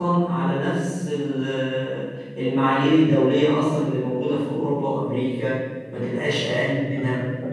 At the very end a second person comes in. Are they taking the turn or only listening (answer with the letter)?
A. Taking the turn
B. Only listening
A